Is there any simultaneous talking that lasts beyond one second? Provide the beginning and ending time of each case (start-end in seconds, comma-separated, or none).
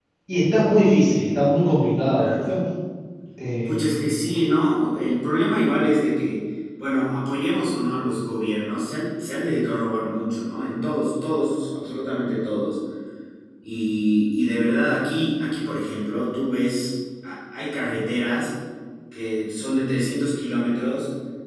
none